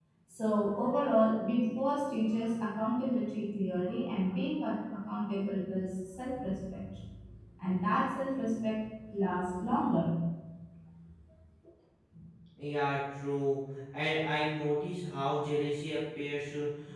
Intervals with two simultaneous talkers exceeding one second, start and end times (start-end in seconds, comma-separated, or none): none